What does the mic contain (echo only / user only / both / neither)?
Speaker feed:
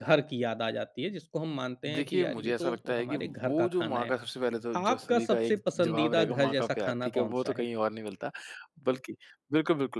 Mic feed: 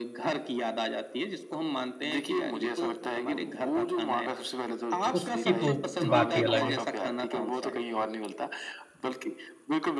both